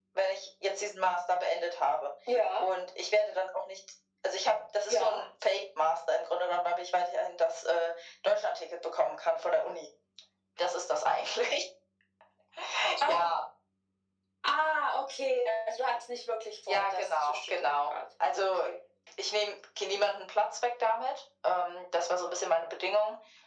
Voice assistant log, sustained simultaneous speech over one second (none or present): present